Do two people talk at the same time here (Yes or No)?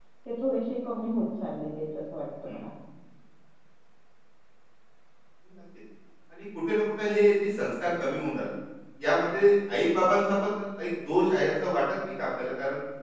No